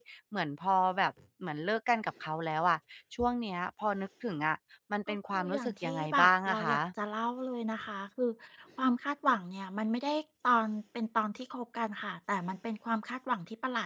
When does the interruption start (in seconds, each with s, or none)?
5.1 s